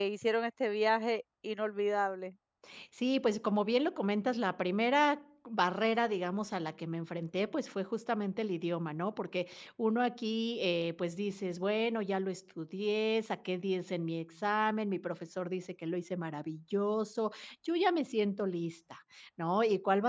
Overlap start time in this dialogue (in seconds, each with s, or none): none